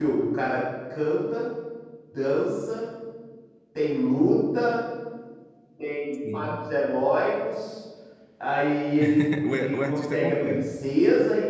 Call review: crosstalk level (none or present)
present